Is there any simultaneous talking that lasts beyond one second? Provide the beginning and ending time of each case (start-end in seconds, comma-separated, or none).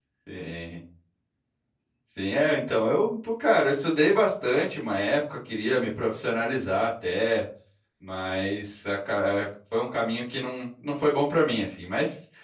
none